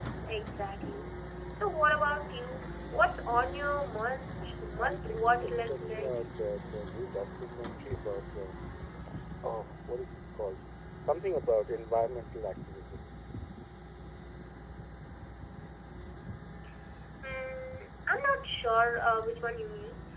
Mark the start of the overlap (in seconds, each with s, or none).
4.8 s